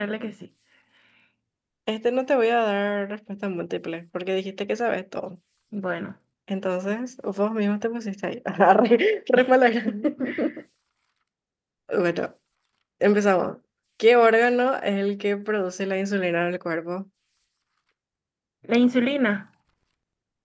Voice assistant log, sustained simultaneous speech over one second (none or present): none